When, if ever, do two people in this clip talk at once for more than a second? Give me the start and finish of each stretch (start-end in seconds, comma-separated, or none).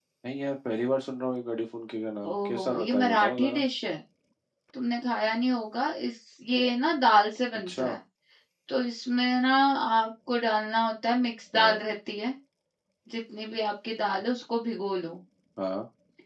2.3-3.6